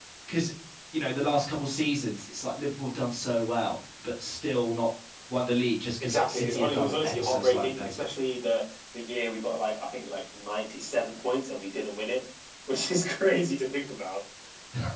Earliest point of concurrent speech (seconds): 6.0 s

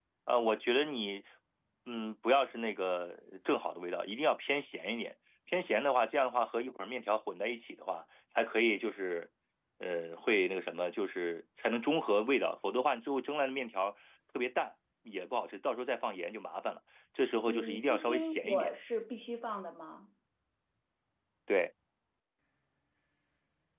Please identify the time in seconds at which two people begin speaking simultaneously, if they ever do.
17.5 s

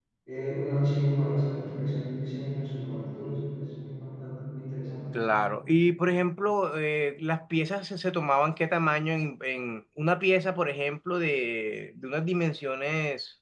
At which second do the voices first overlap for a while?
none

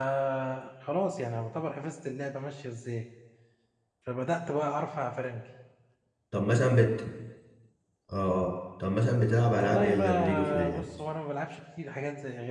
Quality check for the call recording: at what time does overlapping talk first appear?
9.6 s

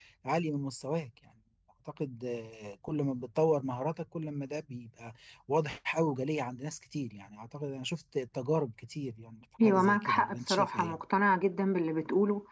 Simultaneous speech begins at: 9.6 s

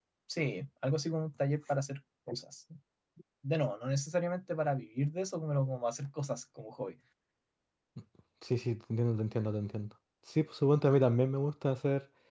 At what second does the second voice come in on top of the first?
none

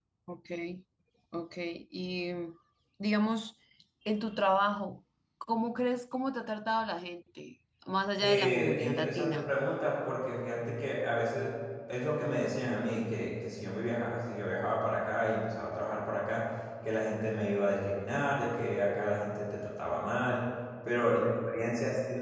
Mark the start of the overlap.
8.2 s

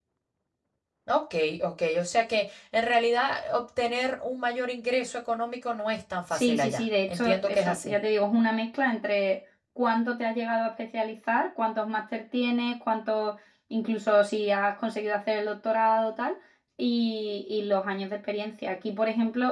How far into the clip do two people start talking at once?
6.3 s

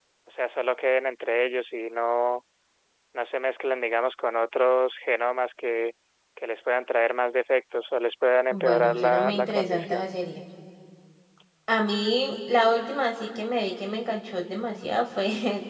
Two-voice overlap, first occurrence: 8.5 s

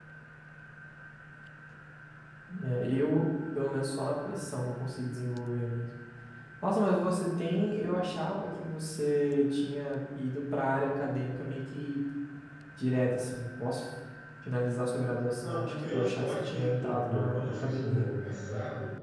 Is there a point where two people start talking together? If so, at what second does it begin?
15.3 s

